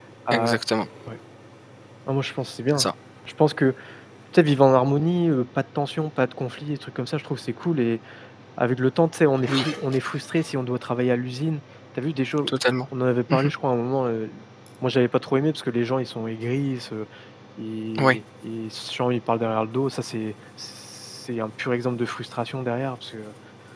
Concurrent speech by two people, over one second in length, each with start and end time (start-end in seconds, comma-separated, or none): none